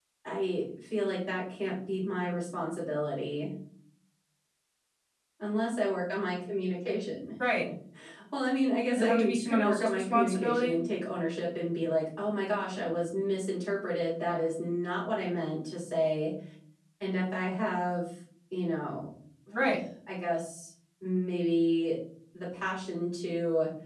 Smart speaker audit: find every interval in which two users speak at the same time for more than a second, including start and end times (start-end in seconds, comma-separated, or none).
9.0-10.8